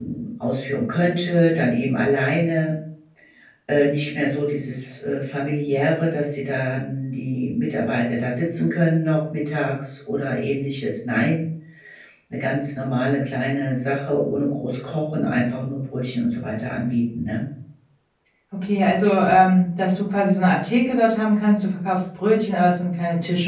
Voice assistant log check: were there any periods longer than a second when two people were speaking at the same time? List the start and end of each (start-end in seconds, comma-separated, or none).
none